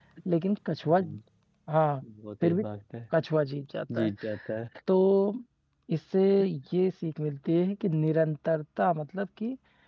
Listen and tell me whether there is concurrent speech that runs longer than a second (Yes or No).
No